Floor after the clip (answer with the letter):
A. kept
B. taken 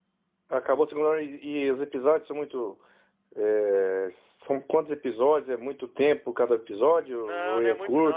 B